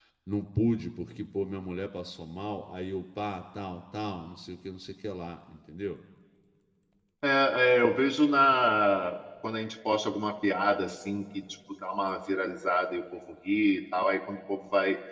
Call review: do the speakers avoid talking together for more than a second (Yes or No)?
Yes